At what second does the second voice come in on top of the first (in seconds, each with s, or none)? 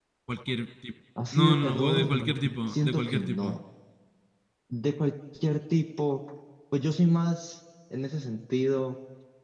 1.2 s